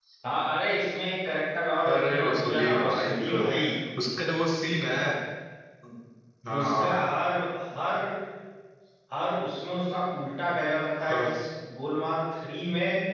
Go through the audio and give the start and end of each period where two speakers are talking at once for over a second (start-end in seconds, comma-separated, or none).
1.9-3.3